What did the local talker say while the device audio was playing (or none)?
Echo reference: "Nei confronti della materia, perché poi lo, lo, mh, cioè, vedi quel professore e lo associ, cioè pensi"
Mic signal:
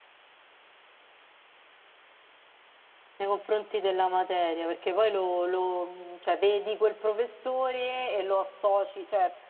none